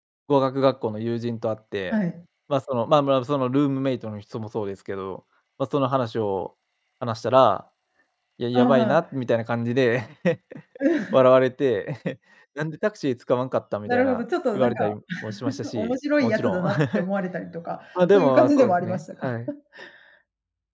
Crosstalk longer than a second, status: present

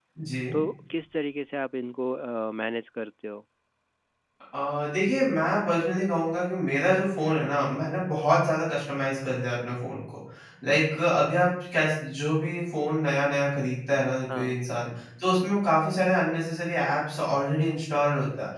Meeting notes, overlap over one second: none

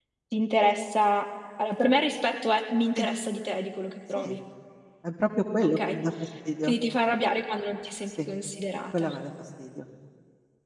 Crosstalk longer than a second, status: none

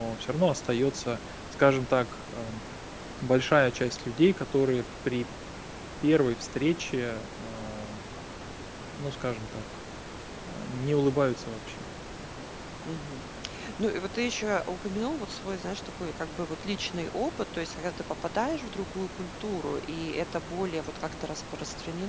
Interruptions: none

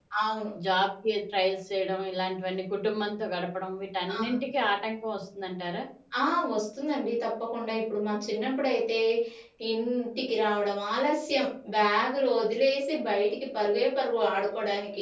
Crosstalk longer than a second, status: none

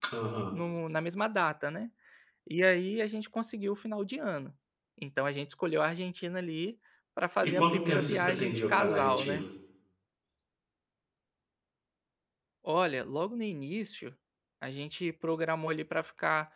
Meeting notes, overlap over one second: present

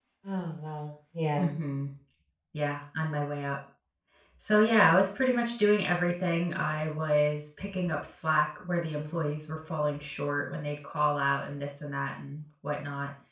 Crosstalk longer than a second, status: none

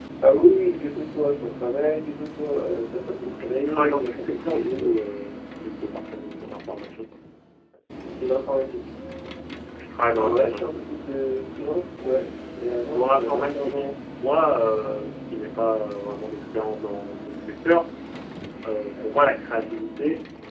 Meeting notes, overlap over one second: present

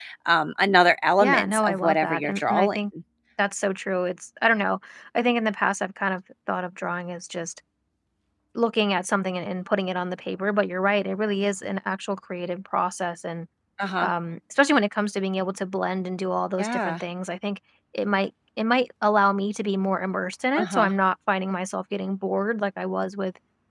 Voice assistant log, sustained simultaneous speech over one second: present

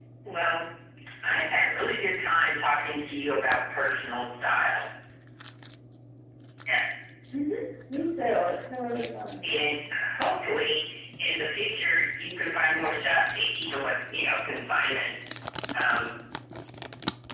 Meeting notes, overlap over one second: none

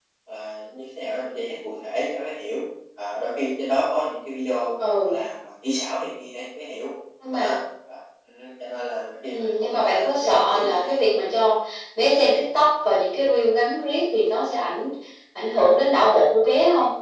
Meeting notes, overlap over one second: present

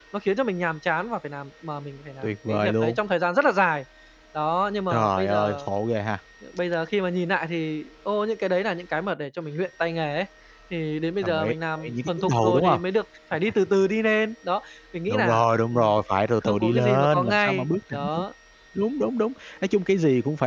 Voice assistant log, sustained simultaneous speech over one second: present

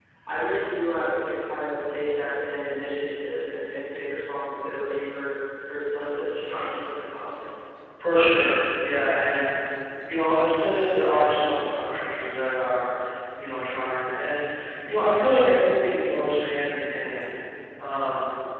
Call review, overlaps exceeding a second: none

